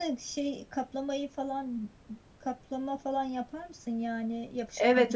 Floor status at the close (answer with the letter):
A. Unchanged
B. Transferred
B